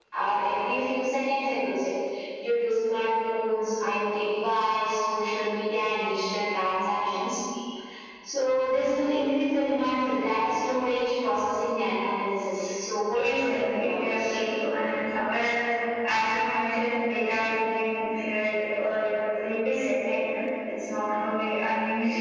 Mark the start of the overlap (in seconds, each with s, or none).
13.1 s